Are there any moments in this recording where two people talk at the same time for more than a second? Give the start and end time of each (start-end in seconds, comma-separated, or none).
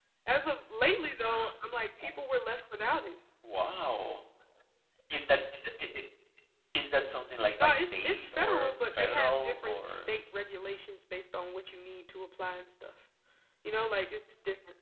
7.6-10.0